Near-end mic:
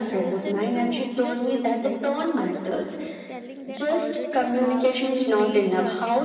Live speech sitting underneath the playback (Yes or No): Yes